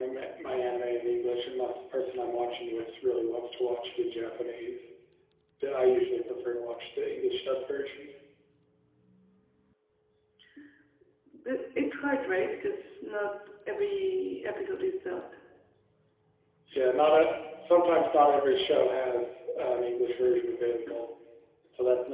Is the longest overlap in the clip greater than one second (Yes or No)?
No